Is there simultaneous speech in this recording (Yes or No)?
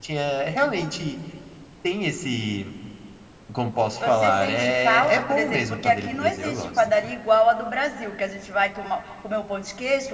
Yes